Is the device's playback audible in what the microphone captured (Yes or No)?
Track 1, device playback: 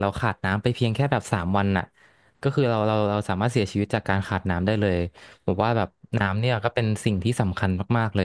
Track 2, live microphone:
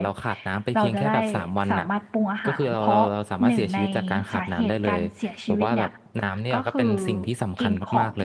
Yes